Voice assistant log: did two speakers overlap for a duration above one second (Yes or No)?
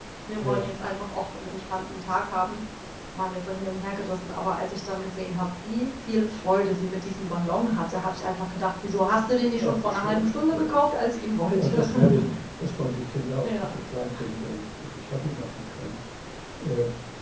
Yes